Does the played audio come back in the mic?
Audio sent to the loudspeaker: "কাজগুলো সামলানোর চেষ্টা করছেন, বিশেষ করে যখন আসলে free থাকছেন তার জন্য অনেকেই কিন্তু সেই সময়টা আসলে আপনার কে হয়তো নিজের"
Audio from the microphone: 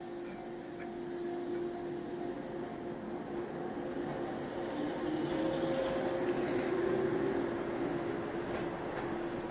No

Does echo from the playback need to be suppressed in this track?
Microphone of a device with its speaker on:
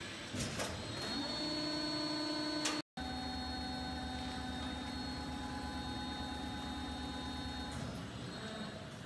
No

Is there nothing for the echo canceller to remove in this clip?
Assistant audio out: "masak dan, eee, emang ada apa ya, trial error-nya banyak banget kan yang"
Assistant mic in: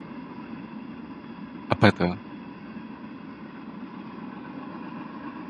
Yes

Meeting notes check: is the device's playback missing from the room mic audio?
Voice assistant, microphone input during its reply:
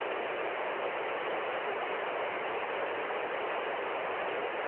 Yes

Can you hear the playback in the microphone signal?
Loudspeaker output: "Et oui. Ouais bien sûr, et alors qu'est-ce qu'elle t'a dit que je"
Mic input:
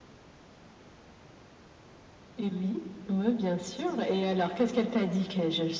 Yes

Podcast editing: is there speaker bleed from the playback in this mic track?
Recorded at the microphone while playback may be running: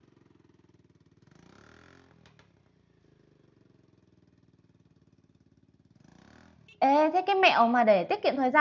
No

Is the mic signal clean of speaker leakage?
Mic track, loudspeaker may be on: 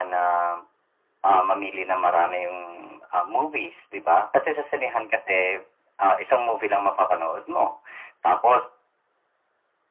No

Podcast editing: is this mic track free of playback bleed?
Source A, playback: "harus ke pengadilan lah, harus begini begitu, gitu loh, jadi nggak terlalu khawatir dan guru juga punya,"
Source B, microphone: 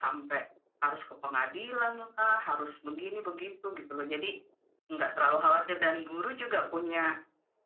No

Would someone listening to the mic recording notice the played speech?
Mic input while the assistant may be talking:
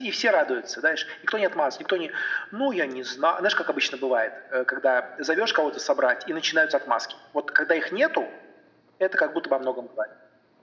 Yes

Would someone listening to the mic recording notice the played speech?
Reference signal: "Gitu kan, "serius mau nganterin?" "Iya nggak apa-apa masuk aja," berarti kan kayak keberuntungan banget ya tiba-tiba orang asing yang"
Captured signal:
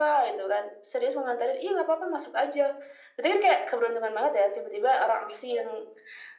Yes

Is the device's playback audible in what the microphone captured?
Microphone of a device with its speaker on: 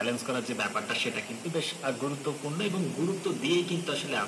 Yes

